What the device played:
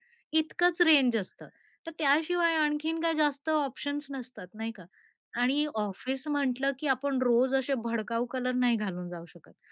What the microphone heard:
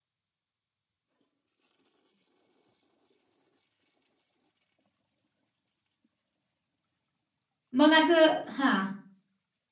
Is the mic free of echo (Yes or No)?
Yes